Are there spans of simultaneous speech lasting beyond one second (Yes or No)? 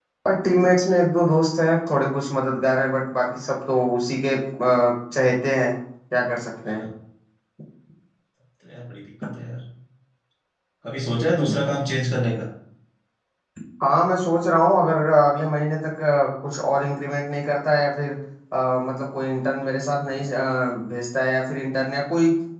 No